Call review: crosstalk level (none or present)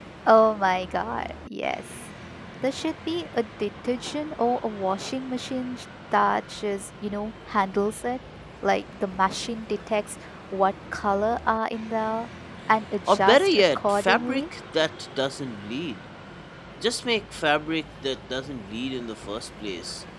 present